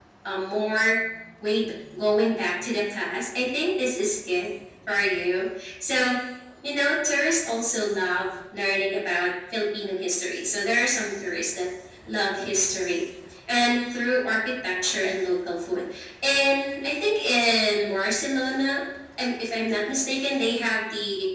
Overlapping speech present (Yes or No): No